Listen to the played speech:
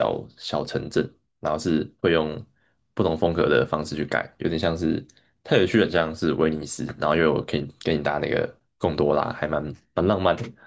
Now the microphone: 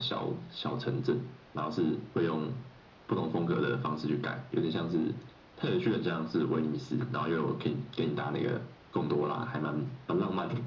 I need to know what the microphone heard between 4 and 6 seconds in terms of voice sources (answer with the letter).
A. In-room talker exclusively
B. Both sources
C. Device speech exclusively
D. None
C